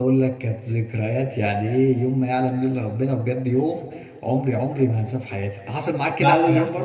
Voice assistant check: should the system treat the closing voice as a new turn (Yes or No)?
Yes